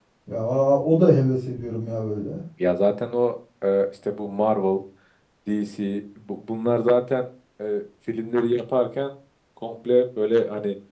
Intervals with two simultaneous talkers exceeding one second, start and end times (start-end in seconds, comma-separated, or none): none